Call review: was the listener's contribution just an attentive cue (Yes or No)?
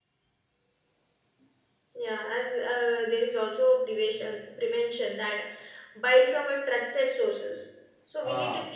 Yes